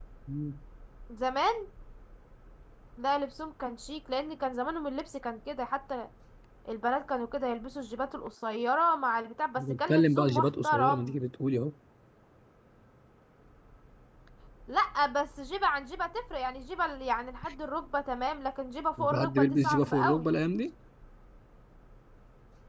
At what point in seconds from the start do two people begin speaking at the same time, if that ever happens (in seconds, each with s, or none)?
9.6 s